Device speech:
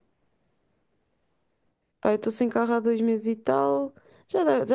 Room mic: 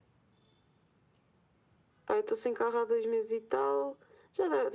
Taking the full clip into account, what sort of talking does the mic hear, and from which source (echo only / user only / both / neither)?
echo only